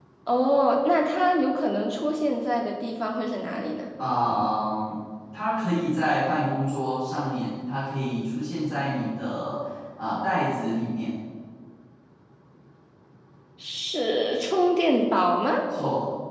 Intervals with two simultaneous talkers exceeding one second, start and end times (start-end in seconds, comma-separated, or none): none